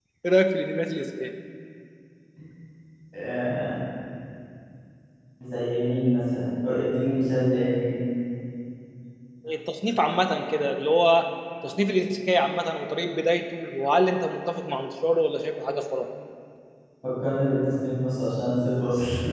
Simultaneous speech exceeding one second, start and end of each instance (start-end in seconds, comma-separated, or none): none